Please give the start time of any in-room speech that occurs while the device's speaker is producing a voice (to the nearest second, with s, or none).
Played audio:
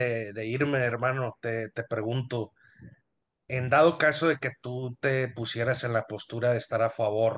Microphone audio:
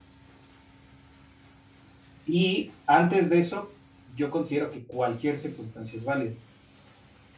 2 s